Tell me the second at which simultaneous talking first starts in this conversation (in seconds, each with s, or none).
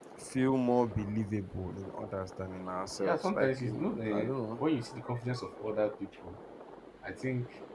3.0 s